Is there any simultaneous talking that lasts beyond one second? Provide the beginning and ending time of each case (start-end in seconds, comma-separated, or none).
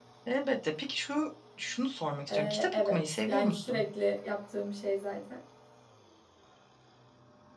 2.3-3.8